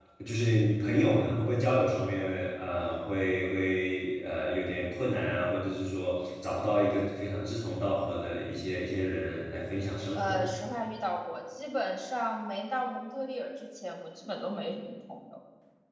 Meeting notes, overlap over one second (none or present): none